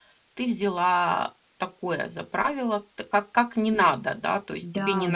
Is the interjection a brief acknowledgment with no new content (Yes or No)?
Yes